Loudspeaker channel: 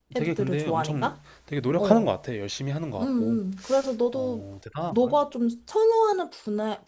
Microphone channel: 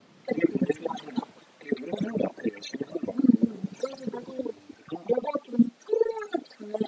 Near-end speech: none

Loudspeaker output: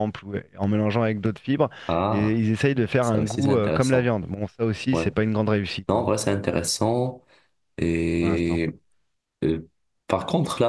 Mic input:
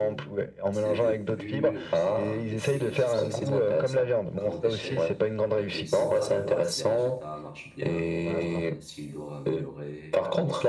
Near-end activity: present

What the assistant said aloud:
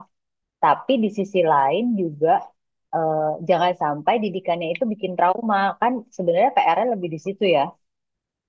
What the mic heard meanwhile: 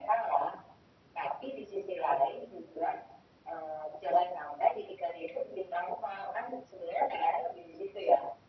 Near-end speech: none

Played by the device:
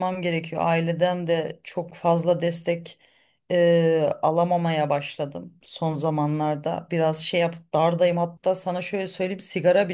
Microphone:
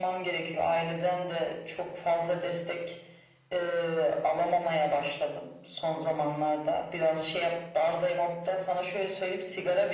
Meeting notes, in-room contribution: none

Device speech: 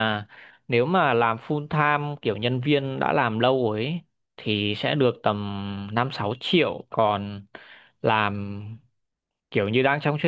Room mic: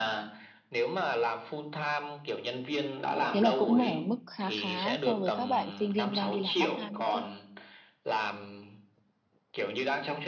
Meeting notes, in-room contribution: present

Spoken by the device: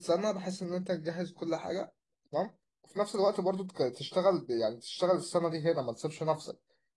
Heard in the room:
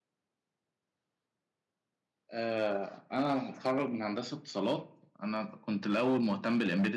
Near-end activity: present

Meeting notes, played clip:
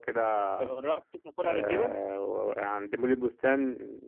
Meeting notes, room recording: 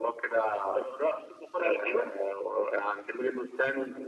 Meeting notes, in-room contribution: none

